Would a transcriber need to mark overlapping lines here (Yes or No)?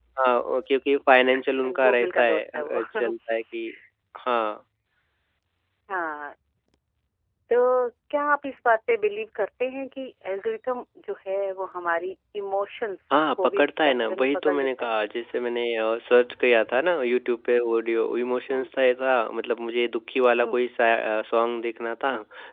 Yes